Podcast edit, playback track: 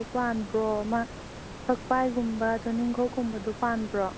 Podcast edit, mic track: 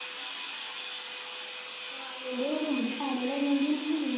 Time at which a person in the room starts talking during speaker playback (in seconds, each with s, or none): 2.0 s